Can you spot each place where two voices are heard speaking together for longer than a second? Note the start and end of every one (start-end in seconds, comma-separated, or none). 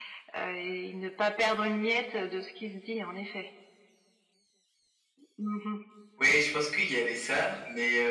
none